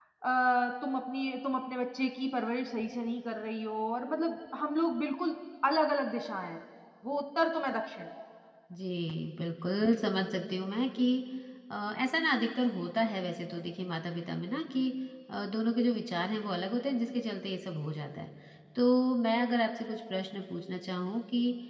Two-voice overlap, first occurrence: none

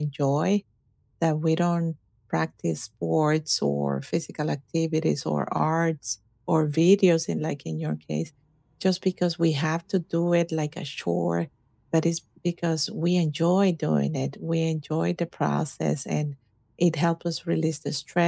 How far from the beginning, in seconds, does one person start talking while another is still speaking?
none

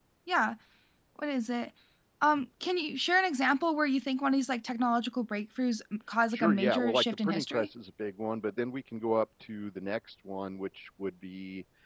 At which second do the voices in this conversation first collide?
6.3 s

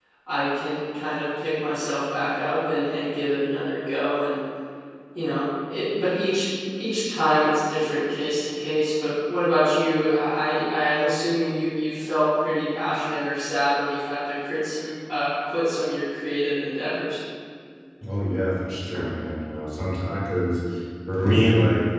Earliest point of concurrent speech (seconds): none

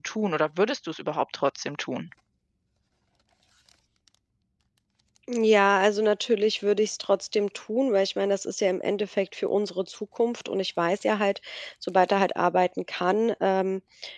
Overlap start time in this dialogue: none

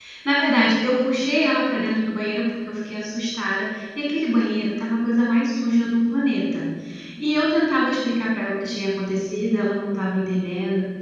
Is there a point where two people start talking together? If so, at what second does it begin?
none

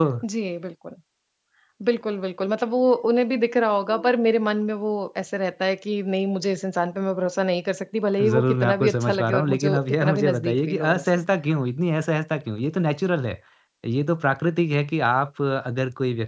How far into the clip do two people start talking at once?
8.2 s

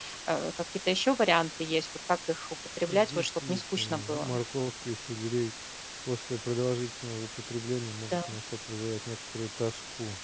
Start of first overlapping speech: 2.9 s

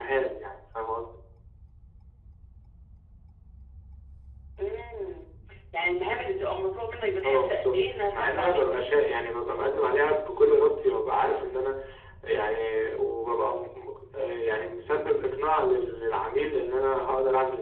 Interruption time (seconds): 7.2 s

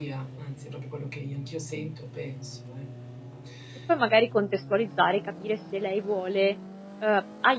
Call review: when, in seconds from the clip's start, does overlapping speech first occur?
none

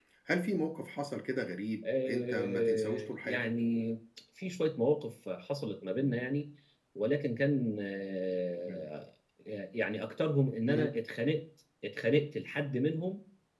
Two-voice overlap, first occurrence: 2.1 s

